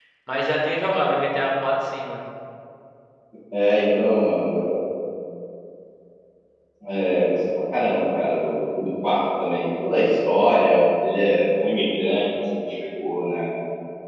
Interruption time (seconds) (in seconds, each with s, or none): none